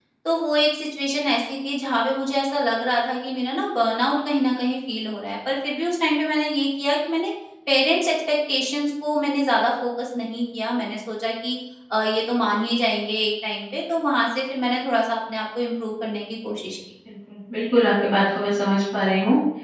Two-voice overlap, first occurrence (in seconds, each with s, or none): none